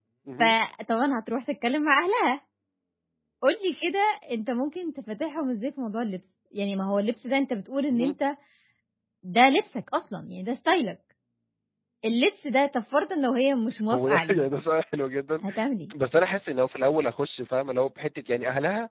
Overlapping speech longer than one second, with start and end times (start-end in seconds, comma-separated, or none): none